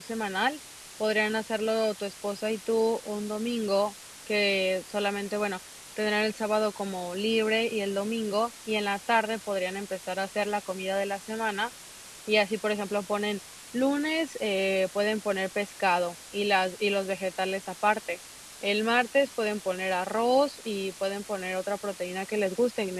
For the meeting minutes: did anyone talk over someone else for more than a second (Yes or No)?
No